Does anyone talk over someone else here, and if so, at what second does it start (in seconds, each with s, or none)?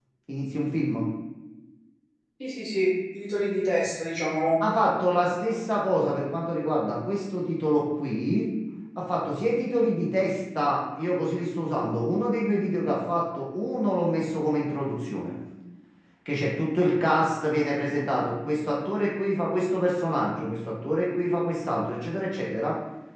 none